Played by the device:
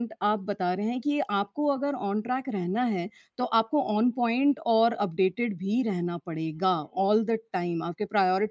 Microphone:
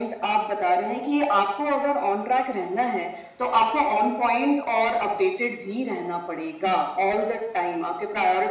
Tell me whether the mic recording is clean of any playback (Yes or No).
No